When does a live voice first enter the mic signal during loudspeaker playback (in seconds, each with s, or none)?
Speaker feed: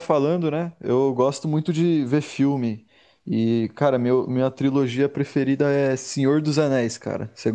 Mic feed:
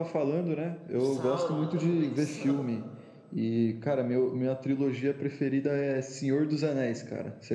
1.0 s